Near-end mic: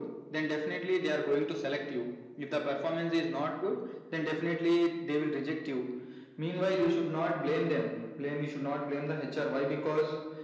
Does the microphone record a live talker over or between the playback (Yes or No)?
No